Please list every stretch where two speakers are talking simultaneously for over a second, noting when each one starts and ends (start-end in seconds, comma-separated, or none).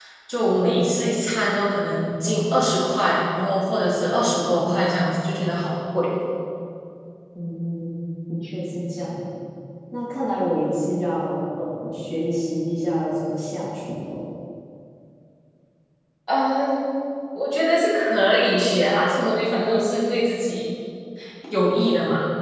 none